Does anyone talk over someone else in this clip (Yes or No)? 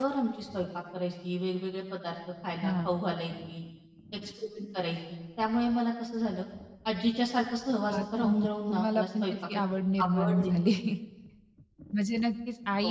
Yes